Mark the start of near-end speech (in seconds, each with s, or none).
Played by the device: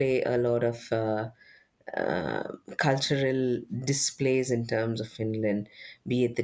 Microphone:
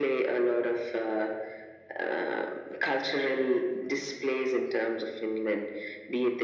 none